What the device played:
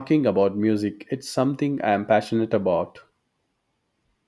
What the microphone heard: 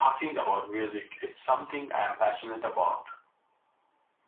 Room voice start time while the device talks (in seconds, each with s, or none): none